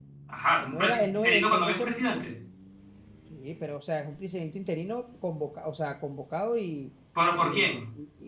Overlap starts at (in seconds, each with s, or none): 0.6 s